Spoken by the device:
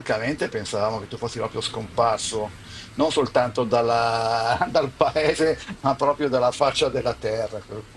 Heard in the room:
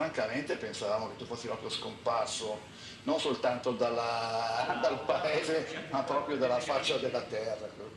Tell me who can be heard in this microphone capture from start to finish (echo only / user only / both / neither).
both